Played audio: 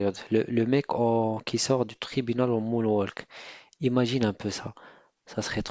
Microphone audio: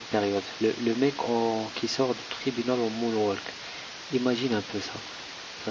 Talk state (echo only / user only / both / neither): echo only